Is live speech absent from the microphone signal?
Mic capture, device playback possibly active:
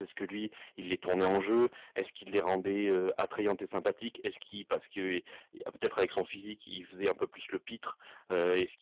No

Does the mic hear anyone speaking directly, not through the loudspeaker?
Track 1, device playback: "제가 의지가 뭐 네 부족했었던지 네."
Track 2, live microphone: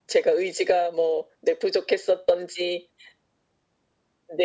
No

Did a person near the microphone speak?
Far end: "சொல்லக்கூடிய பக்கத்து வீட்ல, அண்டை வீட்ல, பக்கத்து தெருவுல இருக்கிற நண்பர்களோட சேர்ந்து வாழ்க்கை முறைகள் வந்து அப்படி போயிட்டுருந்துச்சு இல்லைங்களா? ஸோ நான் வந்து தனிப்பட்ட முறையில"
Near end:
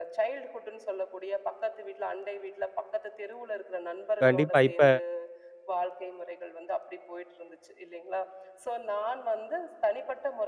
Yes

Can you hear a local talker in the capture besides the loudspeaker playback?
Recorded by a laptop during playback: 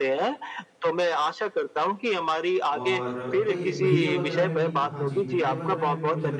Yes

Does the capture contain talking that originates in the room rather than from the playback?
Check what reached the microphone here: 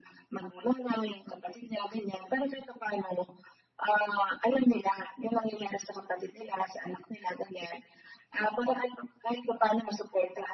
No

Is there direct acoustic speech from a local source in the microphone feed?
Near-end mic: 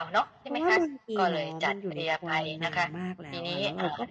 Yes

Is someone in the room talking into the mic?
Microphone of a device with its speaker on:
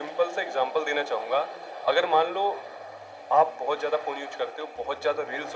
No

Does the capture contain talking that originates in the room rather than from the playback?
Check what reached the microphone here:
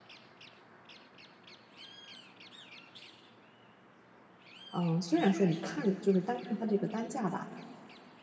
Yes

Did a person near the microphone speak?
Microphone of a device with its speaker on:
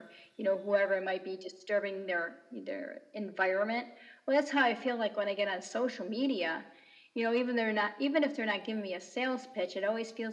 No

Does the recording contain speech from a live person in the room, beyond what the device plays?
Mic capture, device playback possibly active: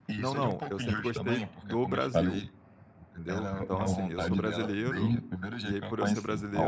Yes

